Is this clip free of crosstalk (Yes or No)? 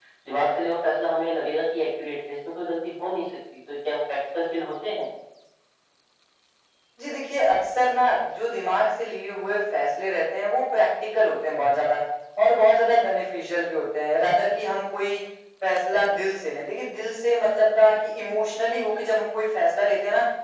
Yes